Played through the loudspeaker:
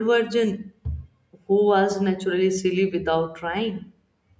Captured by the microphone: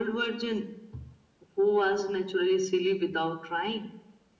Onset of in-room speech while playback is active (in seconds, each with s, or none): none